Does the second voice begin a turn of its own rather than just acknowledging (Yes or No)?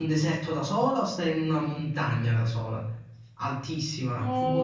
Yes